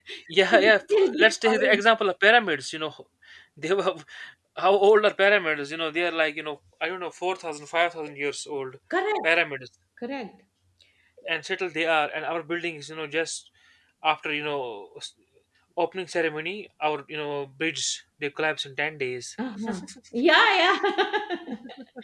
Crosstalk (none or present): present